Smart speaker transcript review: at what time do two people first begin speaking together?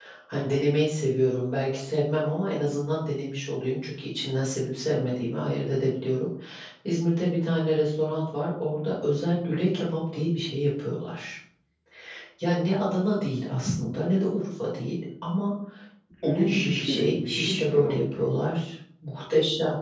16.2 s

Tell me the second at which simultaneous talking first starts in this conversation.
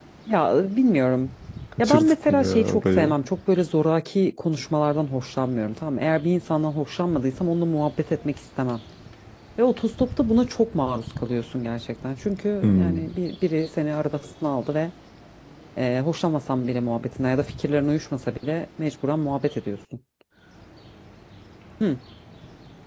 1.8 s

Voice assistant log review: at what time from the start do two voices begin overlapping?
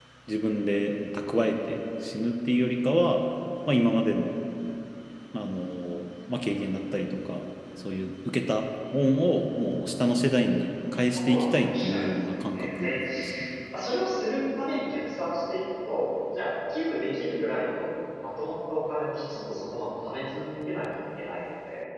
11.1 s

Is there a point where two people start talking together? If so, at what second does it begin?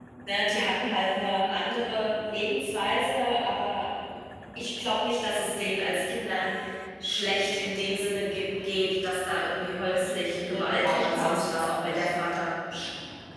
10.3 s

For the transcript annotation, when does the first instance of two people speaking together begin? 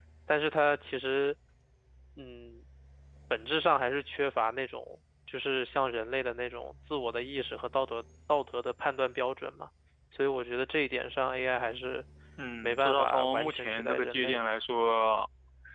12.6 s

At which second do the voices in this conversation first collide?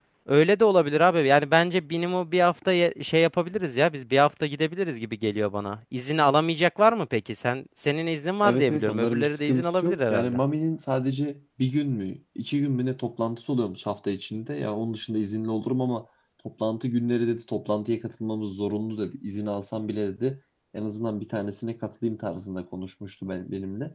8.4 s

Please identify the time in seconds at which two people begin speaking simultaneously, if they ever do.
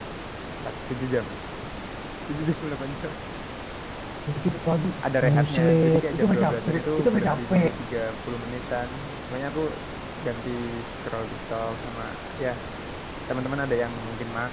5.2 s

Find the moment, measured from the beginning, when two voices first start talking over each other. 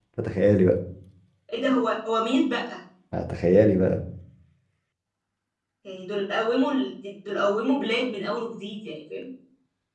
none

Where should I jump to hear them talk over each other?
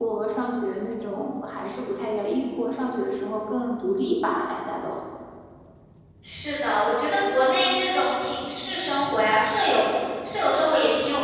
none

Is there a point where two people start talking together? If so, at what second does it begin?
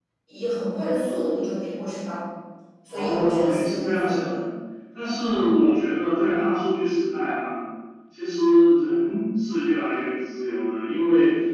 2.9 s

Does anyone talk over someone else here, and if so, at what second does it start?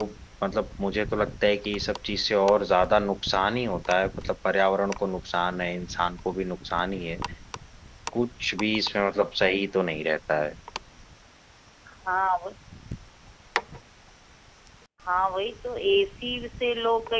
none

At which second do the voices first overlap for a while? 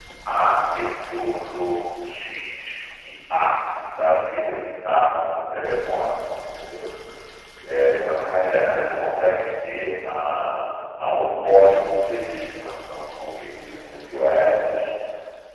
none

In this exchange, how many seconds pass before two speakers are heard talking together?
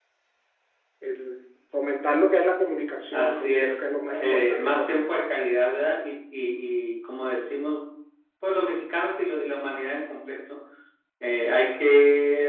3.1 s

